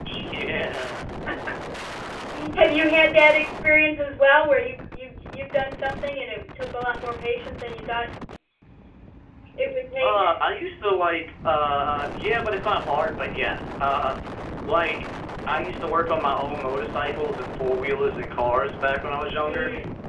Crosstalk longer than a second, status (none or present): none